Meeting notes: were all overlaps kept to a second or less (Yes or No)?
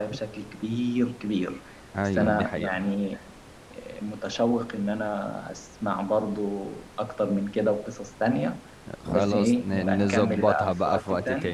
No